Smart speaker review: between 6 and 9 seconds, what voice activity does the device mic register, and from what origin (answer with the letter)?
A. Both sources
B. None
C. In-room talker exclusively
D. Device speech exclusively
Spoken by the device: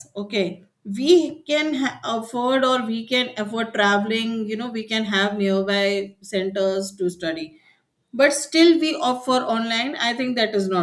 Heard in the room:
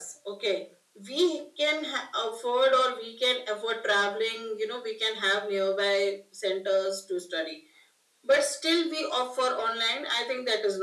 D